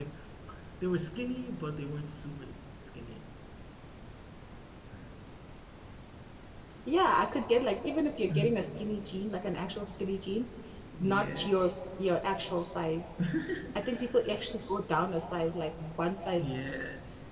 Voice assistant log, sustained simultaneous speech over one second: none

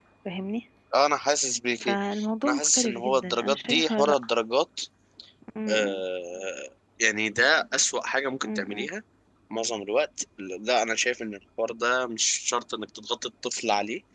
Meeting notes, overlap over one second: present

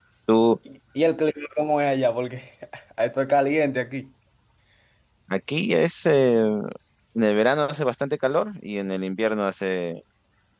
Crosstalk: none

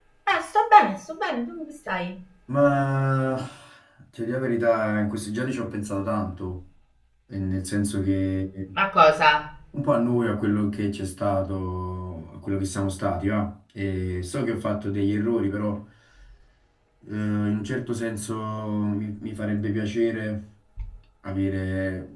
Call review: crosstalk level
none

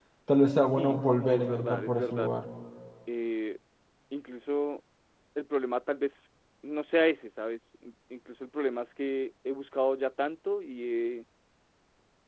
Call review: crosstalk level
present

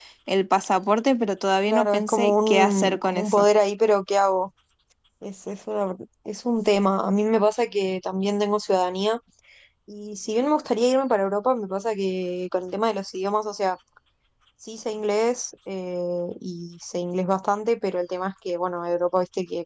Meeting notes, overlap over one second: present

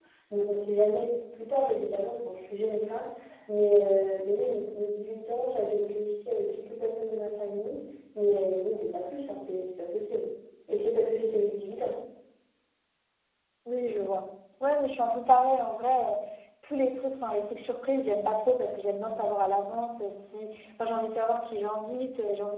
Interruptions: none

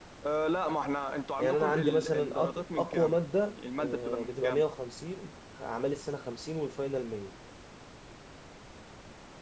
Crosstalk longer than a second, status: present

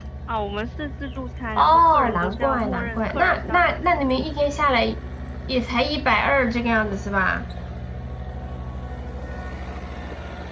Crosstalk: present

